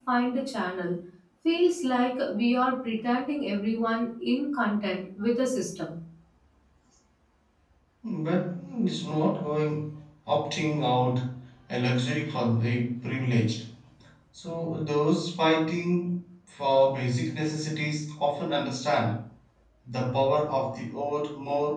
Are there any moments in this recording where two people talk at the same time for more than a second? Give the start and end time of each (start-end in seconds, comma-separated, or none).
none